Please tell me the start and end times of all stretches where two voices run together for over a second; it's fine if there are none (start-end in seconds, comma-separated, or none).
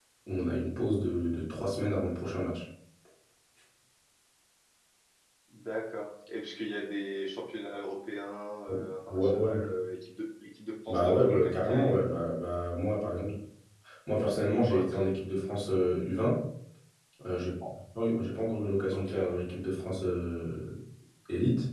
10.9-12.1